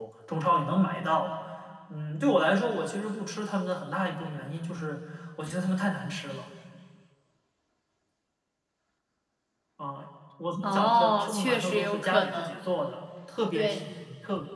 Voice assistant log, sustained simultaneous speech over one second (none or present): present